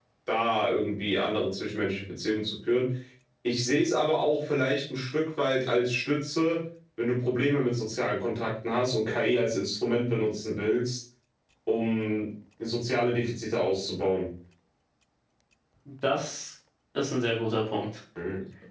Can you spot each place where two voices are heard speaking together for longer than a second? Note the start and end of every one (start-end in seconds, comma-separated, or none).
none